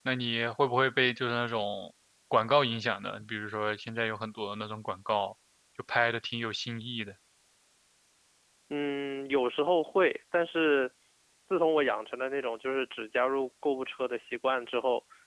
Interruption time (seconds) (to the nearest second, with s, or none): none